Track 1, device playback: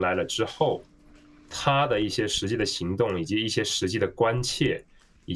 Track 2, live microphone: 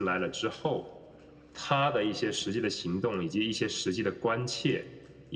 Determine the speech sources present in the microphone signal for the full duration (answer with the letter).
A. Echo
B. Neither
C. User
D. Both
A